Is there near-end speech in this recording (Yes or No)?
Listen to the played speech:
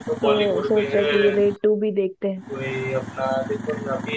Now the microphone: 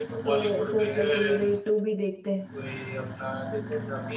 No